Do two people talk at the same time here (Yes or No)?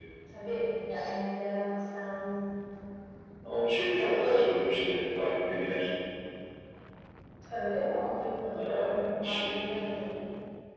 Yes